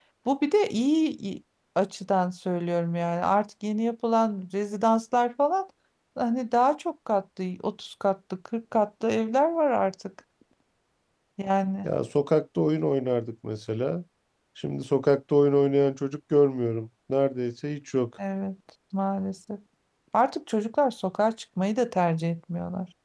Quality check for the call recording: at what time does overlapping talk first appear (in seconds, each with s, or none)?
none